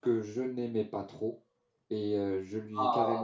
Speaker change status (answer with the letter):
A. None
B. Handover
A